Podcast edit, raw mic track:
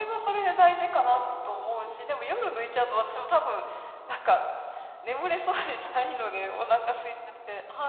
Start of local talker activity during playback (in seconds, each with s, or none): none